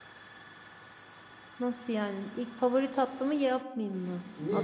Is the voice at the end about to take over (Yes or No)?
Yes